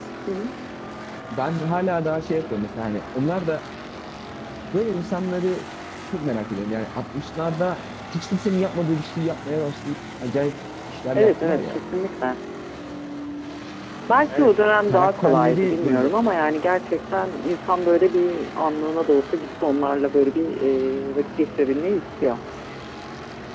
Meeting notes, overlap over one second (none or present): present